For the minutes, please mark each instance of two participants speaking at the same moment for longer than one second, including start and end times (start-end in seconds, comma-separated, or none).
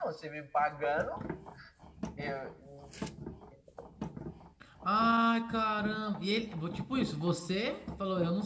none